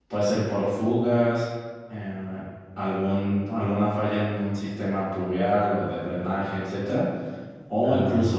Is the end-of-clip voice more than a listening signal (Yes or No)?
No